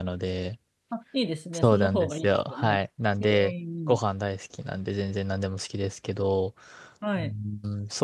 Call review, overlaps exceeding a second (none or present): present